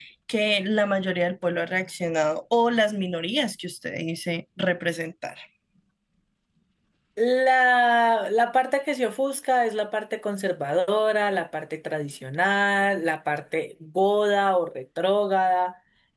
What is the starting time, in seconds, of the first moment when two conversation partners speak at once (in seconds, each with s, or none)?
none